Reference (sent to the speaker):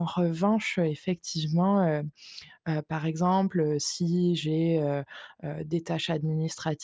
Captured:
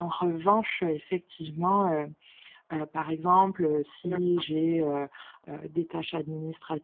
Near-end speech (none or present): present